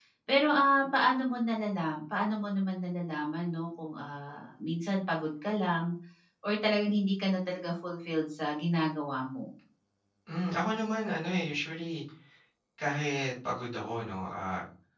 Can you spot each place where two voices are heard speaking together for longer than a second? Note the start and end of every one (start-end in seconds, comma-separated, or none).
none